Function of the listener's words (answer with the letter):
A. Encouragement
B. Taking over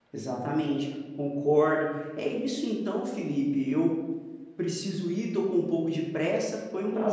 B